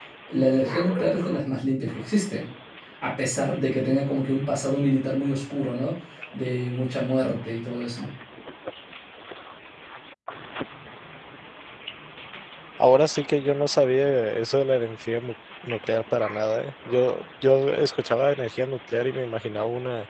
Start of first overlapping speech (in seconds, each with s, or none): none